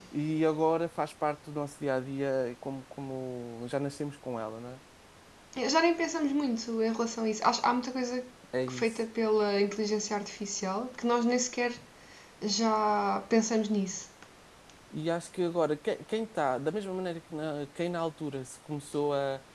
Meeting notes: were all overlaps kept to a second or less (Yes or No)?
Yes